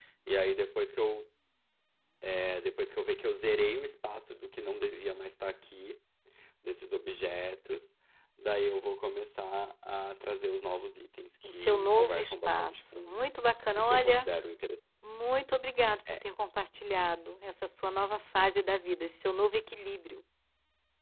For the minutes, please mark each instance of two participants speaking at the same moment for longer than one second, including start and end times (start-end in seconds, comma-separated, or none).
11.4-13.2